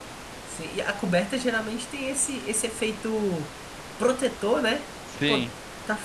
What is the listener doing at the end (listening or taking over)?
listening